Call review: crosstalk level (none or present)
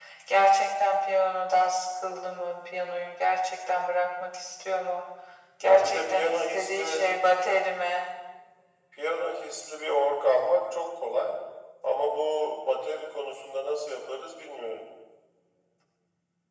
present